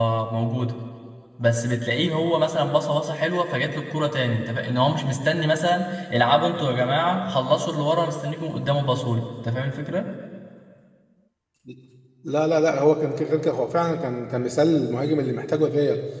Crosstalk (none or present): none